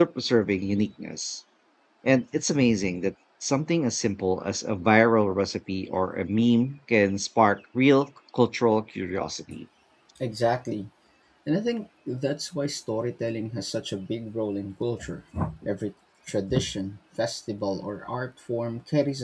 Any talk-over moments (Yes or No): No